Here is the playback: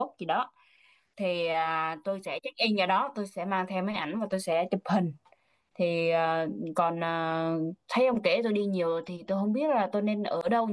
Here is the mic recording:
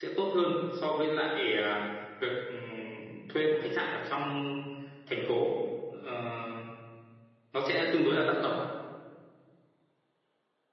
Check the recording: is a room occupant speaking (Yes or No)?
Yes